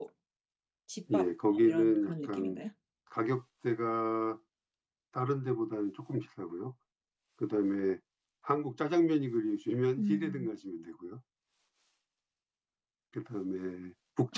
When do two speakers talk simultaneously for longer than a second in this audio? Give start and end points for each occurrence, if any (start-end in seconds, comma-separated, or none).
1.1-2.6